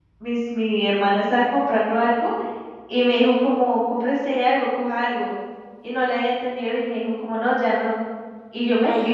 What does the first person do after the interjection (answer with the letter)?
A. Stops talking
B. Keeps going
B